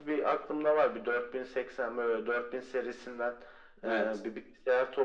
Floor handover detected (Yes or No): No